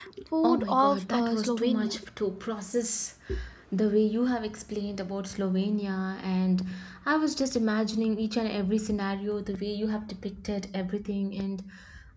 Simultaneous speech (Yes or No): Yes